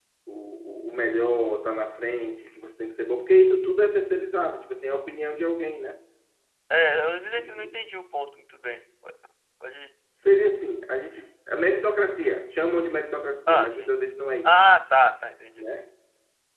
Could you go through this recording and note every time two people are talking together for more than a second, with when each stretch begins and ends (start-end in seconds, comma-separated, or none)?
none